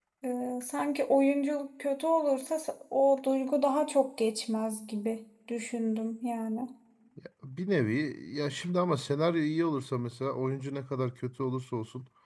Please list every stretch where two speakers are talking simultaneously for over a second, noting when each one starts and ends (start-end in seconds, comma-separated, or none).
none